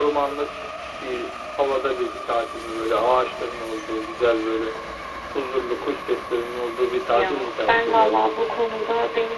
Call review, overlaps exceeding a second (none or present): present